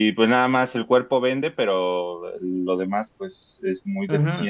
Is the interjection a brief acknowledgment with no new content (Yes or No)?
No